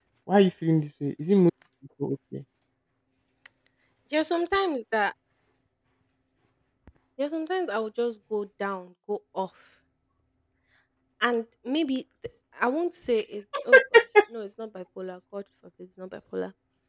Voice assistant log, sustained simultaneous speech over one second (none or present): none